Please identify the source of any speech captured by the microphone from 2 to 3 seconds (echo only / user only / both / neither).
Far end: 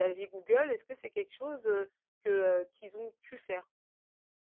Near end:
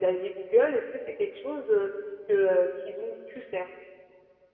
echo only